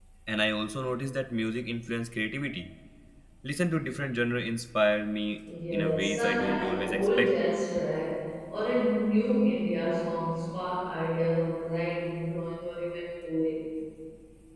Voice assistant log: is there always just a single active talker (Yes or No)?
No